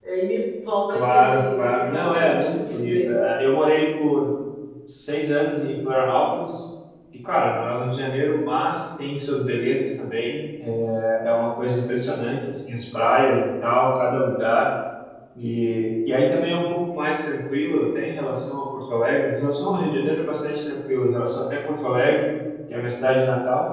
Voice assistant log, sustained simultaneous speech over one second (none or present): present